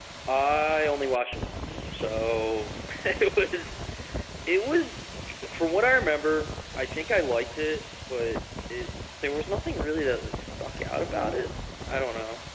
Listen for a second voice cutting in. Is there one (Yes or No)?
No